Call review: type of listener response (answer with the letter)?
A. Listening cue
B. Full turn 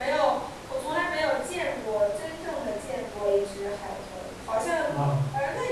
A